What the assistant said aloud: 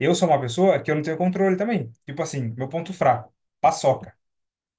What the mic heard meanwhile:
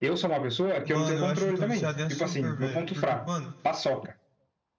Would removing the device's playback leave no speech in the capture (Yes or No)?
No